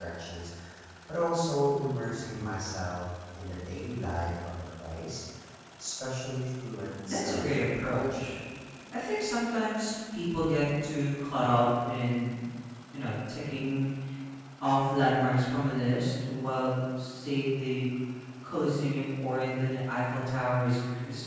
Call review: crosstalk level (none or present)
present